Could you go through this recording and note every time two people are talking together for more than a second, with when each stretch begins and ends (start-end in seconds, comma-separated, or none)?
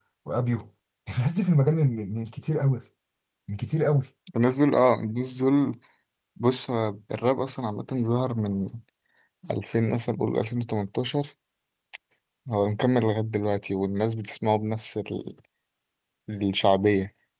none